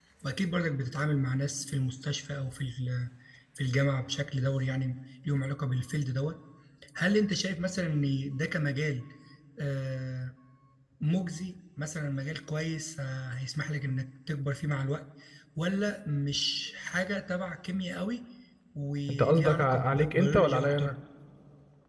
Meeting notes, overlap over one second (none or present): present